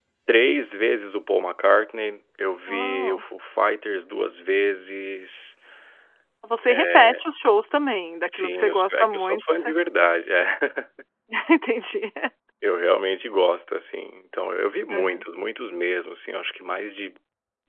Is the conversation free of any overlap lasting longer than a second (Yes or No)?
No